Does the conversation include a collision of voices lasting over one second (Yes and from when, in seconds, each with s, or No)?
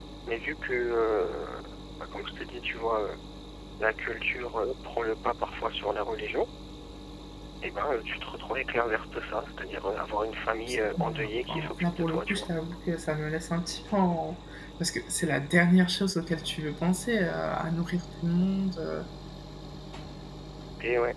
Yes, from 10.7 s